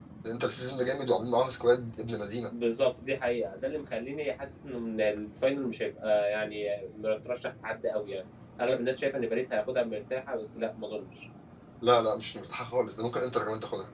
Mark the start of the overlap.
none

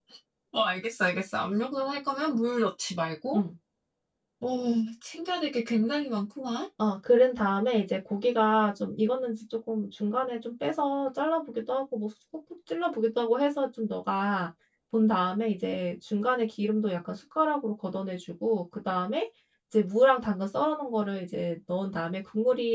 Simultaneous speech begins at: none

